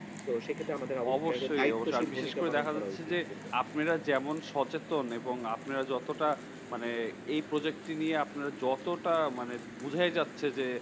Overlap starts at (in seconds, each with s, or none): 1.2 s